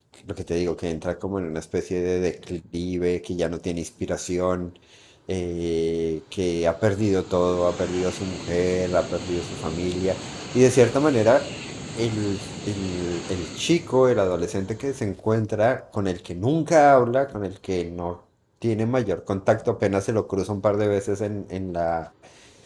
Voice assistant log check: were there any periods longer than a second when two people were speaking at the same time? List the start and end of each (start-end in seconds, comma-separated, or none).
none